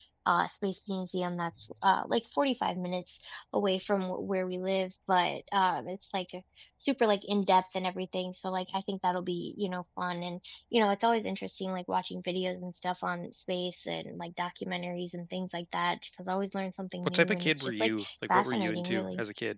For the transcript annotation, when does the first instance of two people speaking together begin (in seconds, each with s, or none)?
17.0 s